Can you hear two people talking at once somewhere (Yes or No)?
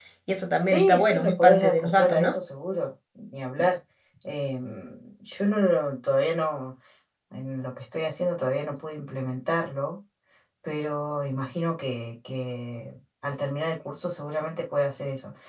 Yes